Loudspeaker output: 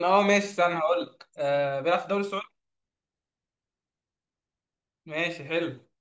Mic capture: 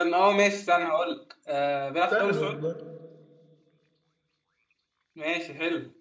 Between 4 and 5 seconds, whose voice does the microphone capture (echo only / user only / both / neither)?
neither